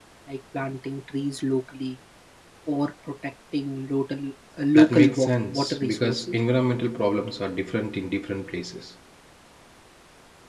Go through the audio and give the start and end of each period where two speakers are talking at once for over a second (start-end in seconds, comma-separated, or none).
4.8-6.3